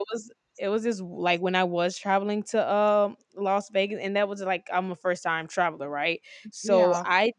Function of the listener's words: listening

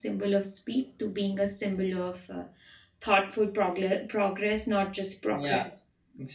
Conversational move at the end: taking over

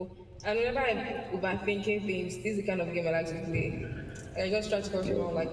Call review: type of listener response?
listening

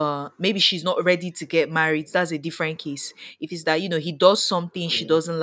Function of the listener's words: listening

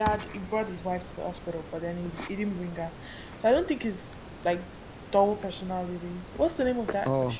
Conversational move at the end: listening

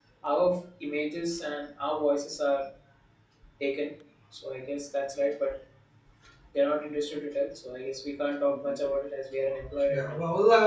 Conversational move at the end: taking over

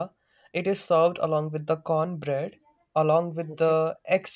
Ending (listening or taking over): listening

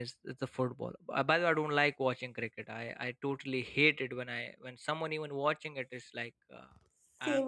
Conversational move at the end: listening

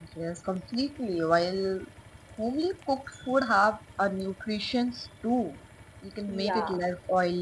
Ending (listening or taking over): listening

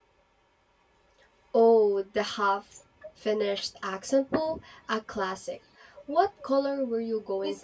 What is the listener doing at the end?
taking over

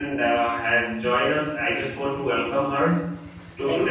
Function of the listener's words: listening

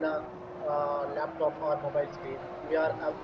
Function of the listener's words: listening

